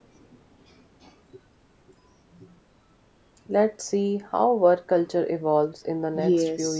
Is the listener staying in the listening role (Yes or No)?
No